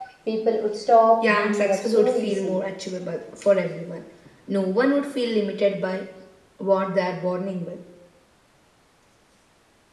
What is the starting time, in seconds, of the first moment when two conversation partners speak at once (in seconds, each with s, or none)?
1.3 s